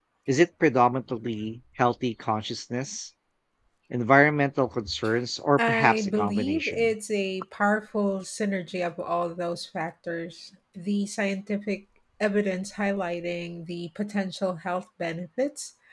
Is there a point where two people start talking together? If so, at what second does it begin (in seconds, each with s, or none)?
5.6 s